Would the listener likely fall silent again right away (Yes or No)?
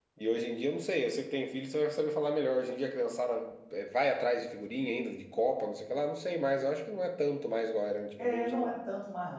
No